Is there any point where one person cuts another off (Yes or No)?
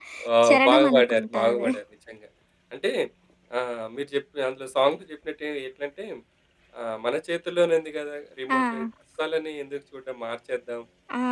Yes